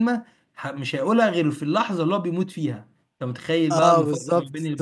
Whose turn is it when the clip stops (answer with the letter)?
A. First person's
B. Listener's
B